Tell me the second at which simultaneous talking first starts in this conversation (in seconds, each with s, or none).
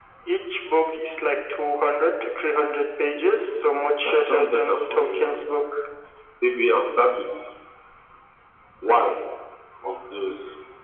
4.0 s